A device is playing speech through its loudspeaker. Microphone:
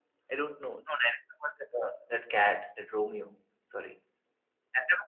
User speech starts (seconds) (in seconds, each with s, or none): none